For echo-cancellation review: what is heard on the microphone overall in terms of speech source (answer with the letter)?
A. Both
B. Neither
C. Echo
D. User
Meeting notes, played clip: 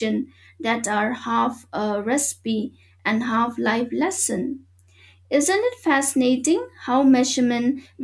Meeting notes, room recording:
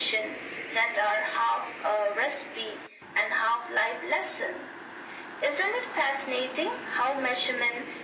C